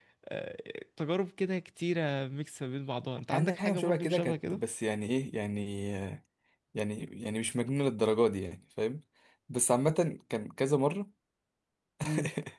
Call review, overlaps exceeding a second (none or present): present